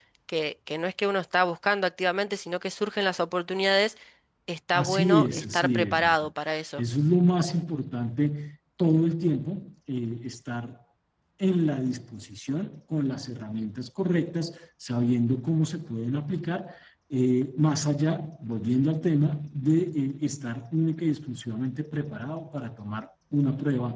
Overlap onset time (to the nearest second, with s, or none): 5 s